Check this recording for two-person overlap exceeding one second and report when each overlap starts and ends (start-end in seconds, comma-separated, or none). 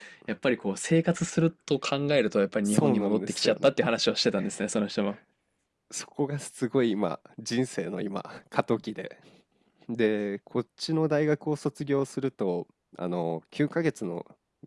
2.6-3.9